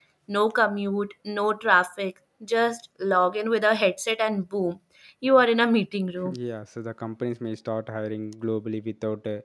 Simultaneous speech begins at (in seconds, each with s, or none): none